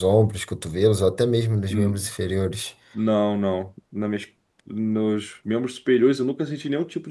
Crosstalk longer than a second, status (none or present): none